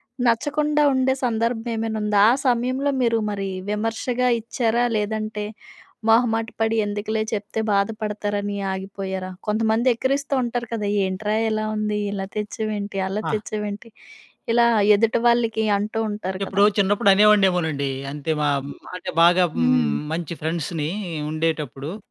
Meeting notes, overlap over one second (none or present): none